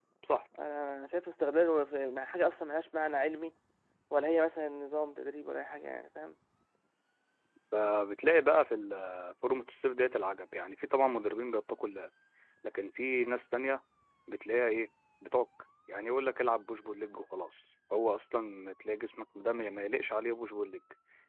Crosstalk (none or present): none